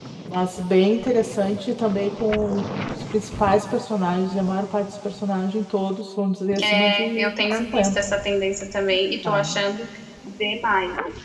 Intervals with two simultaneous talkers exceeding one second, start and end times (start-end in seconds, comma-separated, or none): 6.6-8.0